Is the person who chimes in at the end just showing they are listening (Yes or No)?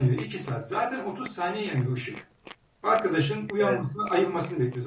Yes